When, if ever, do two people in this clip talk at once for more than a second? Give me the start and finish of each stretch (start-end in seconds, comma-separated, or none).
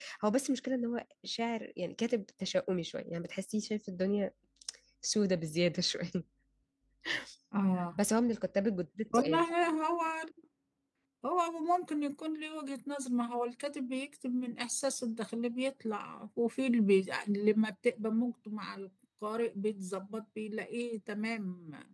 none